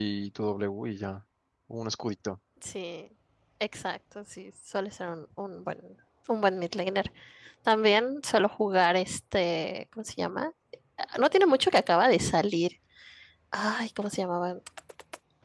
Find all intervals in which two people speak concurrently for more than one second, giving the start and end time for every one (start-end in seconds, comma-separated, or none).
none